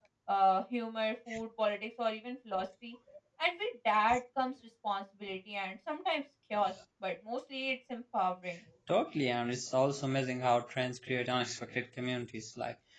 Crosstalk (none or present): none